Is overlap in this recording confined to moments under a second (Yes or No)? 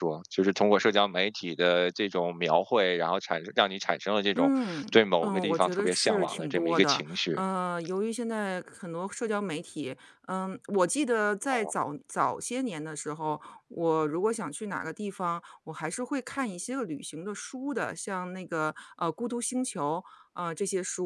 No